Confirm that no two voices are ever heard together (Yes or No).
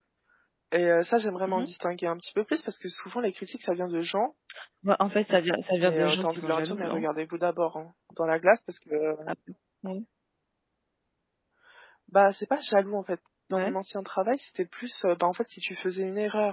No